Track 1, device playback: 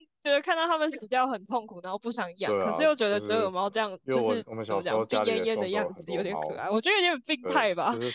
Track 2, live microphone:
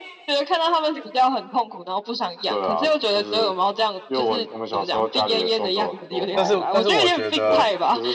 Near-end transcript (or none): 但是但是我觉得。